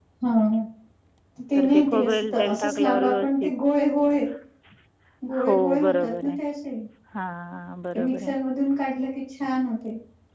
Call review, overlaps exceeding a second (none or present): present